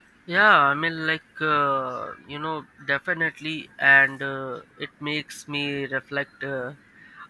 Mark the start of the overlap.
none

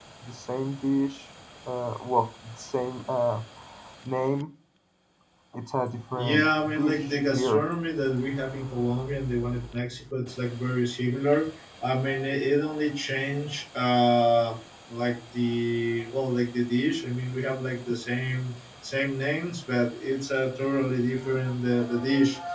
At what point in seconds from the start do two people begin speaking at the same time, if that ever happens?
6.1 s

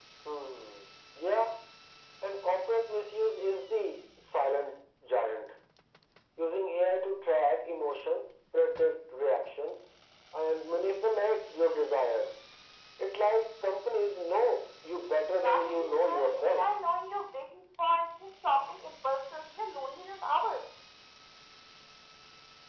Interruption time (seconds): 15.4 s

